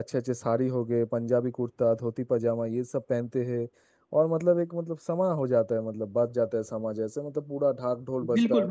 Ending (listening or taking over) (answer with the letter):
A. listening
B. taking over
B